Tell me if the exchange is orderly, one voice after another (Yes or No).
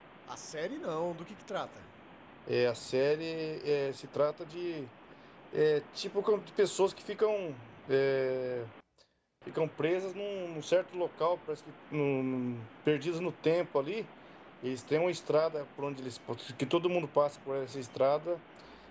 Yes